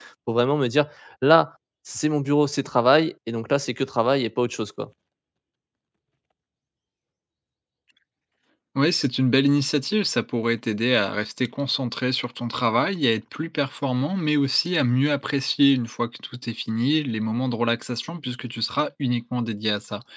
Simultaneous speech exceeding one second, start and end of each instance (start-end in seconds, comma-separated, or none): none